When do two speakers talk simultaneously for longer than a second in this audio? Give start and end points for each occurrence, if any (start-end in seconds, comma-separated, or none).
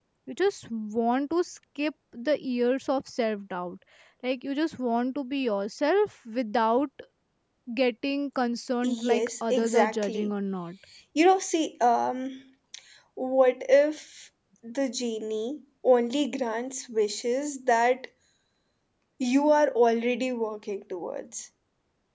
8.8-10.3